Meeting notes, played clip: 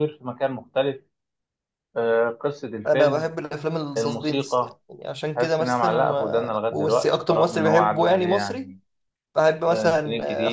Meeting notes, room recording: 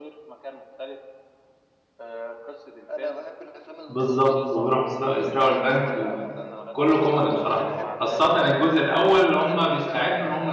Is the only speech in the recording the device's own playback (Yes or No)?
No